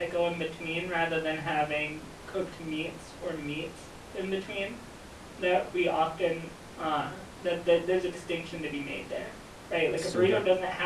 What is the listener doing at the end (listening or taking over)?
listening